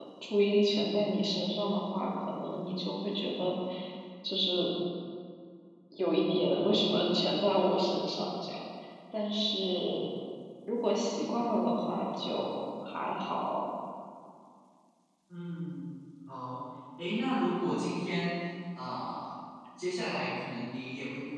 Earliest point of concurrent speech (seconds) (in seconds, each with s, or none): none